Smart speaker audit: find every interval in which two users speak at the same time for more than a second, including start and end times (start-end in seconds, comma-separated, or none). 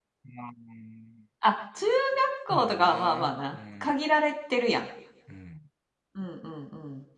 2.5-3.9